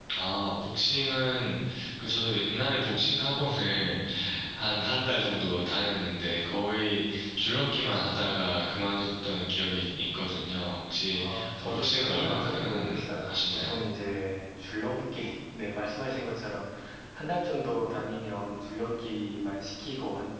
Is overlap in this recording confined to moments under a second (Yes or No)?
No